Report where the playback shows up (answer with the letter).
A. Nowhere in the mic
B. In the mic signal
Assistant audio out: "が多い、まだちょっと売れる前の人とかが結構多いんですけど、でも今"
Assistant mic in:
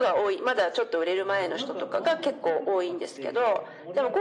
B